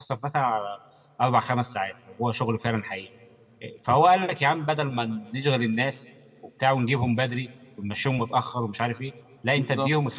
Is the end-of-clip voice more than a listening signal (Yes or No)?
No